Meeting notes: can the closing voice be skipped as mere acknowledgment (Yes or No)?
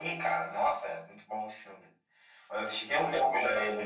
Yes